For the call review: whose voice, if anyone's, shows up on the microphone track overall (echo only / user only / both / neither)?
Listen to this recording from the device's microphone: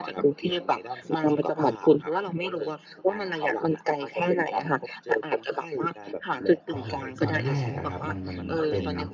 both